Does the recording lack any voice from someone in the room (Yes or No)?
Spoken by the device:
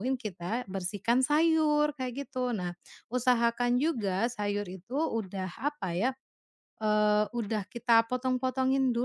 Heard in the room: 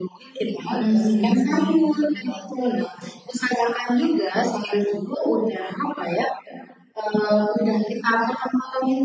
No